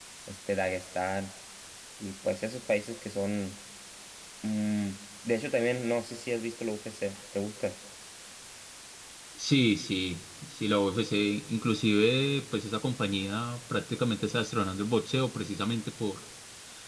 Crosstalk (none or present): none